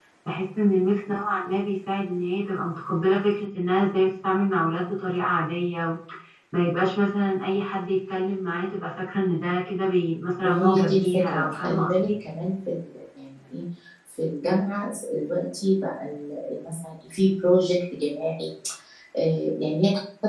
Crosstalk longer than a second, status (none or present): present